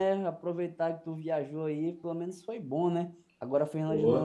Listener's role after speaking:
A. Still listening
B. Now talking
A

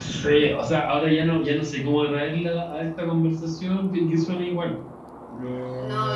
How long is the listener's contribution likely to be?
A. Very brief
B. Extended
B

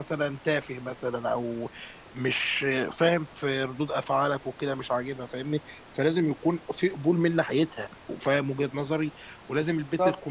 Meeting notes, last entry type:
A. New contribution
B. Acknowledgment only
B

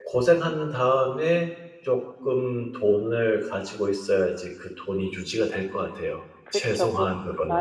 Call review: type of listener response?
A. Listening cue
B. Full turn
B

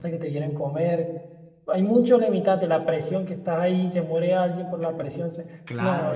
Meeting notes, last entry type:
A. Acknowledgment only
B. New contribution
B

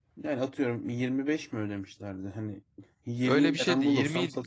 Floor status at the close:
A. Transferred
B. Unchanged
A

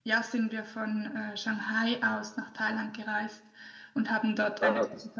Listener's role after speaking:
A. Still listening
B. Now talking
A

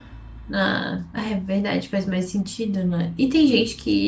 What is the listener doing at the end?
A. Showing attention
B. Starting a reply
A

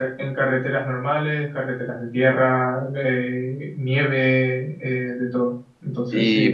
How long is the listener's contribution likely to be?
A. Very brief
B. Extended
B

